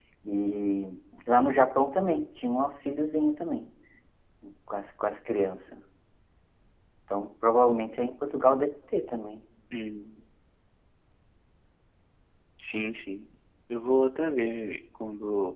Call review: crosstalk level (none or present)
none